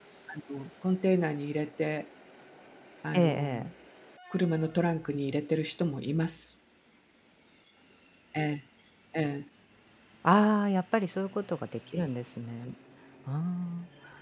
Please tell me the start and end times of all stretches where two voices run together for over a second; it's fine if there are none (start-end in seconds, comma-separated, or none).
none